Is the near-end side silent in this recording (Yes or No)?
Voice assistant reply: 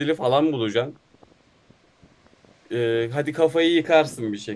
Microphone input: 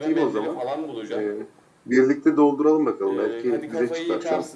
No